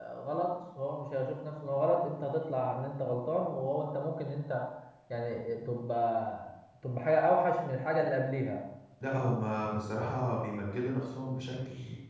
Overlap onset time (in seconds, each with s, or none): none